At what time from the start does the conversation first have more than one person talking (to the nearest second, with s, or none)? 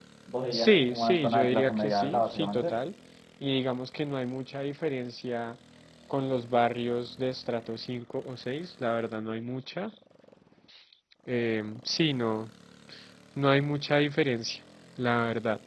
1 s